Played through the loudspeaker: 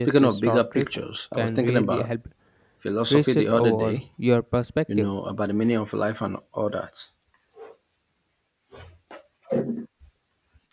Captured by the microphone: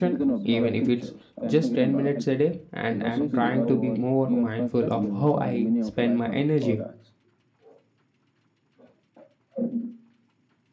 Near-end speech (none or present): present